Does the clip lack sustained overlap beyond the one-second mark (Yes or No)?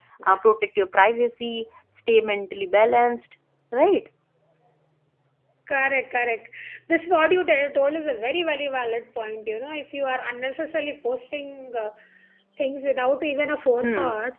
Yes